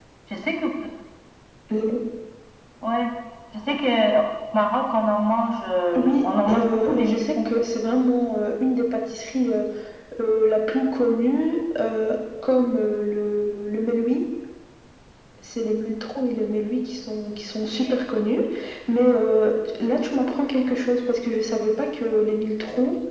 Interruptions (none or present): present